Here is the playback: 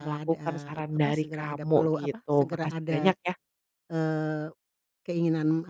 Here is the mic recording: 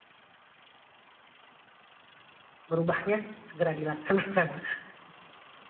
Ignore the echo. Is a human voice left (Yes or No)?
Yes